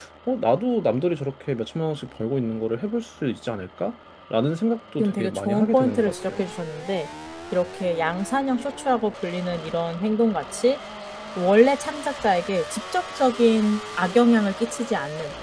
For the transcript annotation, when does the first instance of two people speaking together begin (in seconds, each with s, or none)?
5.0 s